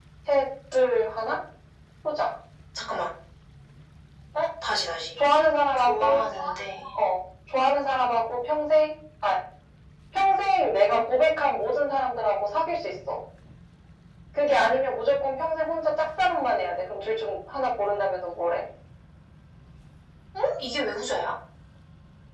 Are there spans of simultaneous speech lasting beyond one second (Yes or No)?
No